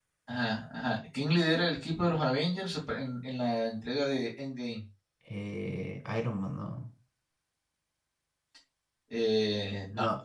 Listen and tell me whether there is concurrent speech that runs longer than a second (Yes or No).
No